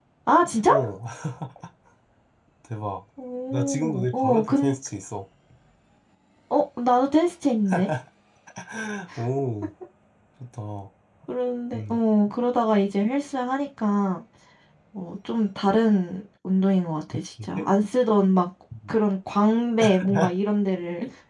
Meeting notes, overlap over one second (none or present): present